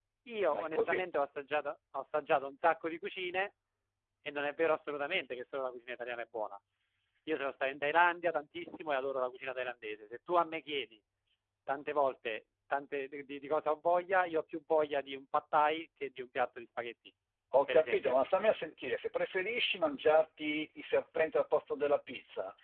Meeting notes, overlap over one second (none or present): none